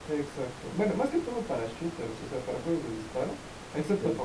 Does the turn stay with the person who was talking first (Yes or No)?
Yes